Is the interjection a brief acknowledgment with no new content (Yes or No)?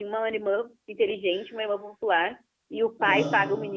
Yes